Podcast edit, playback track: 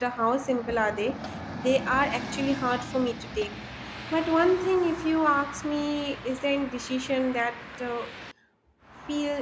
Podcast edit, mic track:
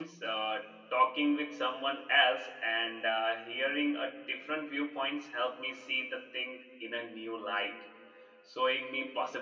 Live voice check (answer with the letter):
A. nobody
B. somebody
B